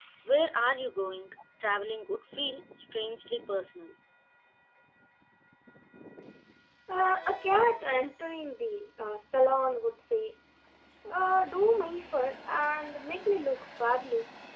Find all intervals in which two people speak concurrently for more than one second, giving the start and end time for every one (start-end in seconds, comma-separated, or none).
none